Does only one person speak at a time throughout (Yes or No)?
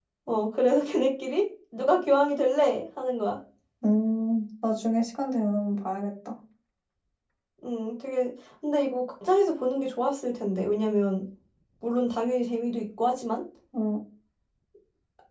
Yes